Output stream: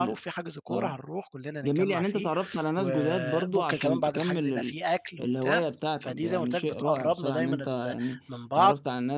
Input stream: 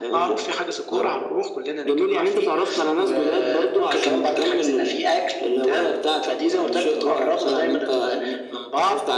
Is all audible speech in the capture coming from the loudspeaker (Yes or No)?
Yes